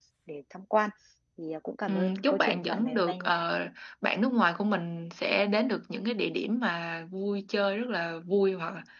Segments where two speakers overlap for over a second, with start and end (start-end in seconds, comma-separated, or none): 1.9-3.5